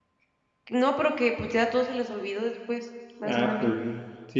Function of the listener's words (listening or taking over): taking over